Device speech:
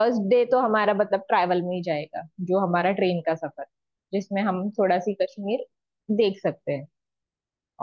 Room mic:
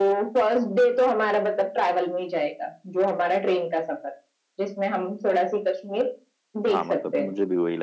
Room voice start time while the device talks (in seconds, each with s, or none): 6.7 s